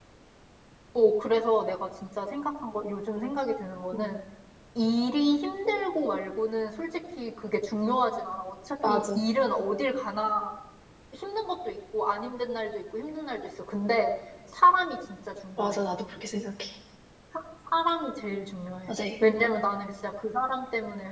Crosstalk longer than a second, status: none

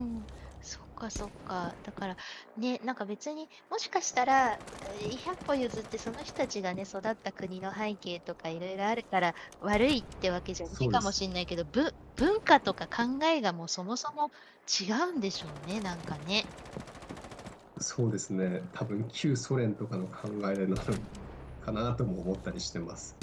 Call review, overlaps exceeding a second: none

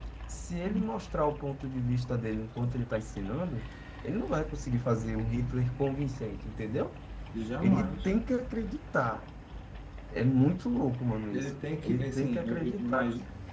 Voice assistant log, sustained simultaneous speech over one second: present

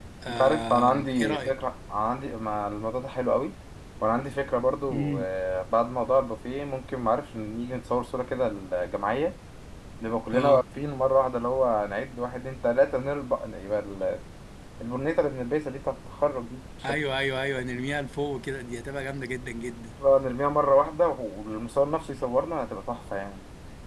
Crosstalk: present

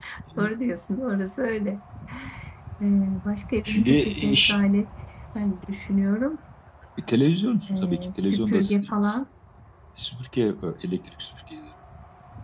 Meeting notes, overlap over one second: present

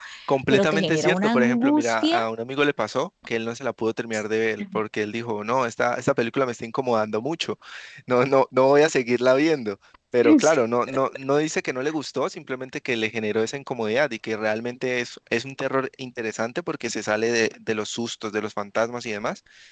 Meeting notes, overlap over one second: present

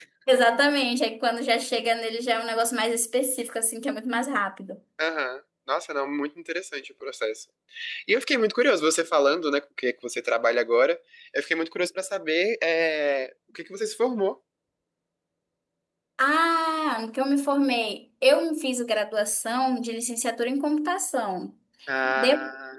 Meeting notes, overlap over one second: none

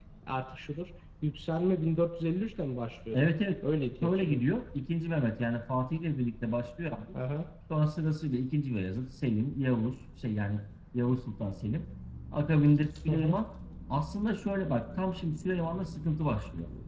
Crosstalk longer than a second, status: none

